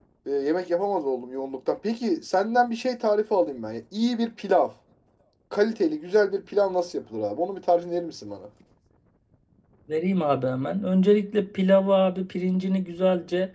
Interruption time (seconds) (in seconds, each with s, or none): none